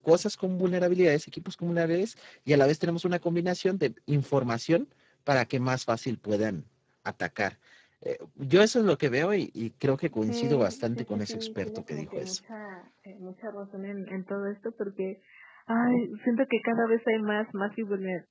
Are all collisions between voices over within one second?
No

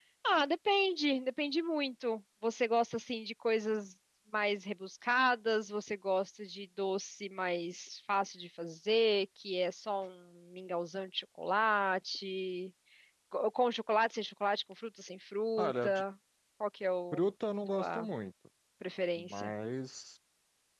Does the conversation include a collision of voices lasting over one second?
No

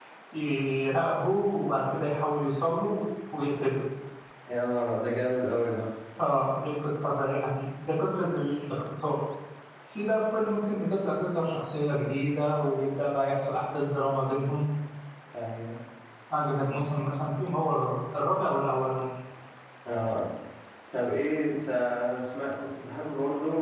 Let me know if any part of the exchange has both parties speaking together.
No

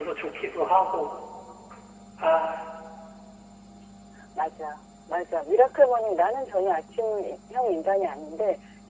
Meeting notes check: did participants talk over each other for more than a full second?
No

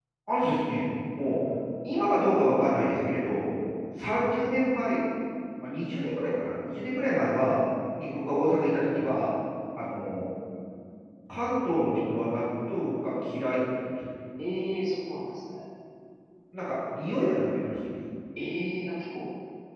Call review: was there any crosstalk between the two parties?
No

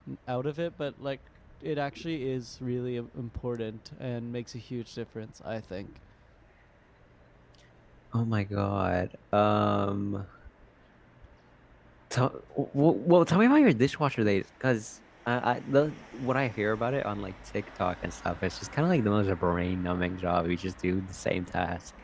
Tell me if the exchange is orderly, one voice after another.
Yes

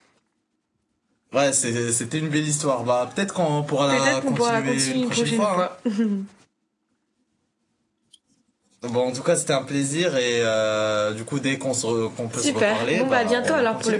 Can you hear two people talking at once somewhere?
Yes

